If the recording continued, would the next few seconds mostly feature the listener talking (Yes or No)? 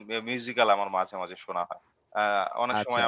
No